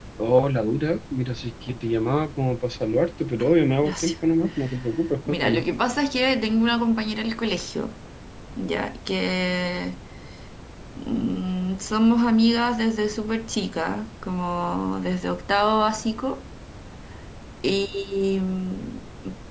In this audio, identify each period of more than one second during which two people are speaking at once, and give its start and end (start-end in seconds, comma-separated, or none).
none